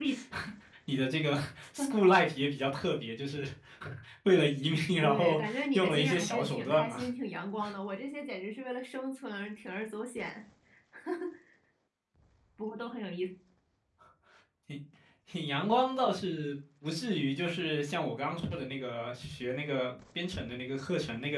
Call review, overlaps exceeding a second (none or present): present